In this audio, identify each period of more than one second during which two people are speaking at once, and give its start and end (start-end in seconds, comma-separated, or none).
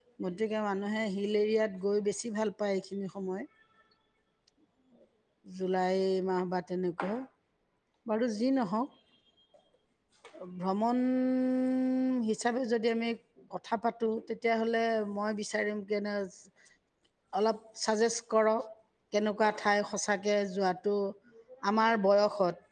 none